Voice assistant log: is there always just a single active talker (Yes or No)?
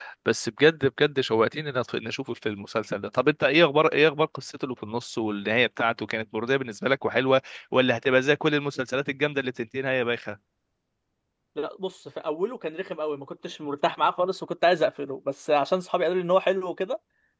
Yes